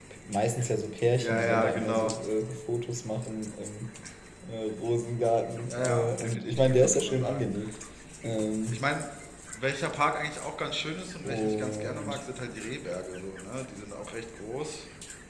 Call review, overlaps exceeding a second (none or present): present